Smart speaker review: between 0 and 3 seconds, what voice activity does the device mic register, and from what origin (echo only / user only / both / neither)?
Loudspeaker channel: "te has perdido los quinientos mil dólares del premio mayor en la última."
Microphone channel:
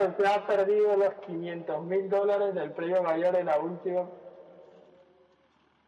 echo only